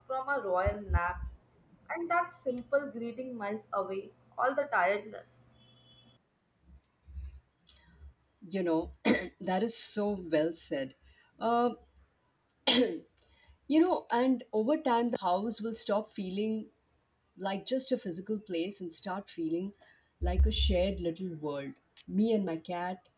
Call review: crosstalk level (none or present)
none